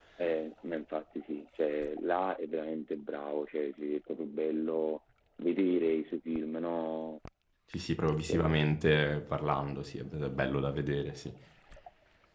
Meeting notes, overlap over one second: none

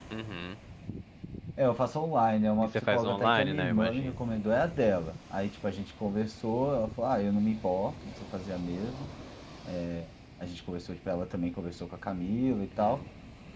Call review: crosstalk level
present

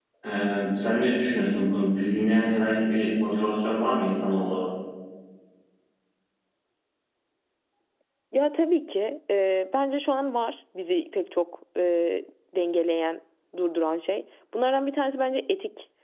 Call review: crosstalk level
none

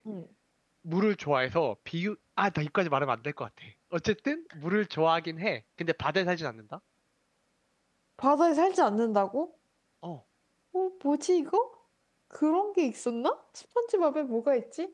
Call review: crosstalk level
none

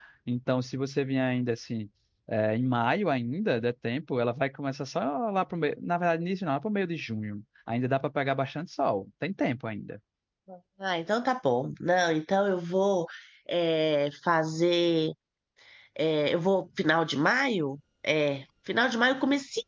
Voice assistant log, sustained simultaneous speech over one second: none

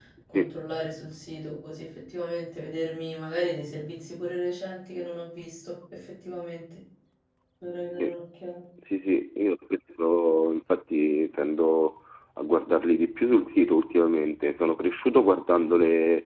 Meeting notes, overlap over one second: none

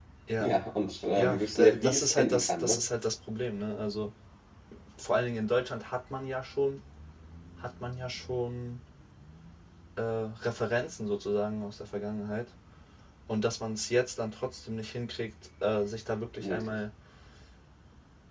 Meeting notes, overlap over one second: present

